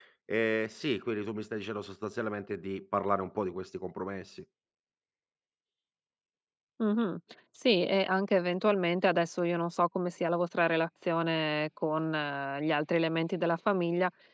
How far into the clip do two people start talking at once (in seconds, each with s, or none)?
none